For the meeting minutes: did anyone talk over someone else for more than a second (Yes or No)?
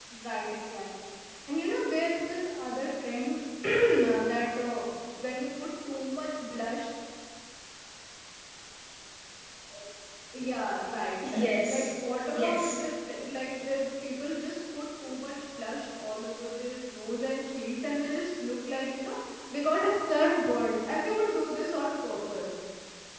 Yes